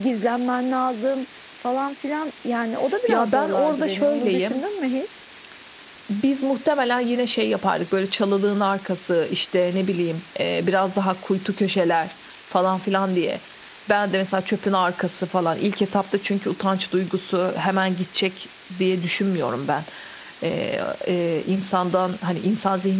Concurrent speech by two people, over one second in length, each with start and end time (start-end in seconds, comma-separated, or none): 3.1-4.6